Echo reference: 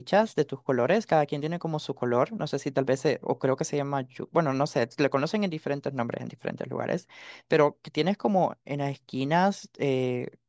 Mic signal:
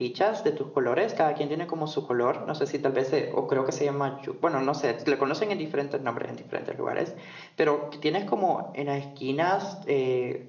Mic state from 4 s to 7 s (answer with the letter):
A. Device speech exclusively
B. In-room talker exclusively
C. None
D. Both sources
A